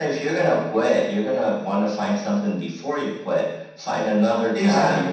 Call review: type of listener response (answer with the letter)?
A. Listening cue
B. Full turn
A